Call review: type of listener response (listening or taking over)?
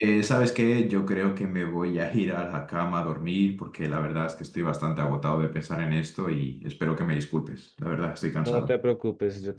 taking over